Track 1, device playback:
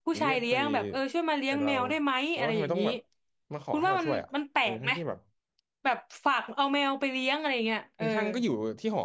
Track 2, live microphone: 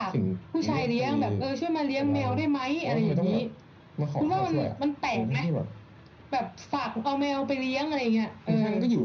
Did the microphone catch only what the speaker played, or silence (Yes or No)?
Yes